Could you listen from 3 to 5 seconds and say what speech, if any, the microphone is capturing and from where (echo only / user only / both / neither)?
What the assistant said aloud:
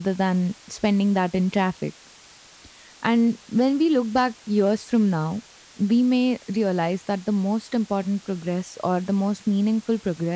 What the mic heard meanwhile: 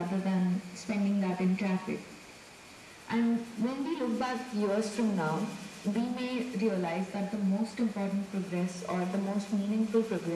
echo only